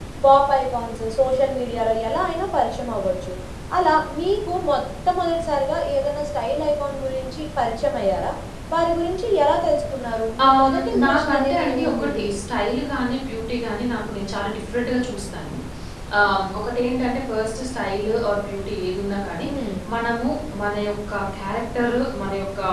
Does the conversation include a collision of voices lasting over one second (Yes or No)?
Yes